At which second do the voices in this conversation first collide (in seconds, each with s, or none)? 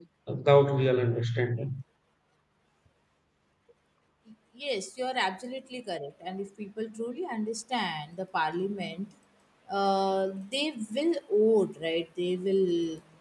none